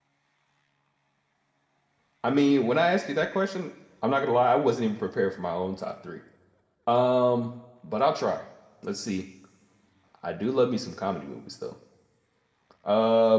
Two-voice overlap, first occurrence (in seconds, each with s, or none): none